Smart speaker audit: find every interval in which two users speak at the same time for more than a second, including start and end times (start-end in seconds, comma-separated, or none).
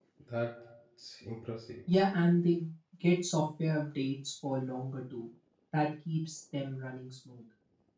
none